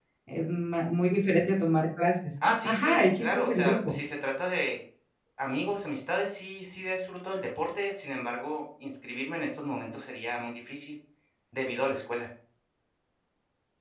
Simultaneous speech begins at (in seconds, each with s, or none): 2.4 s